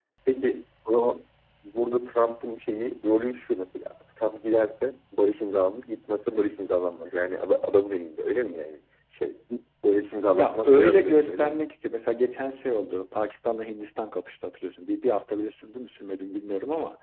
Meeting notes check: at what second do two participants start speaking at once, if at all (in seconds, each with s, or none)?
10.4 s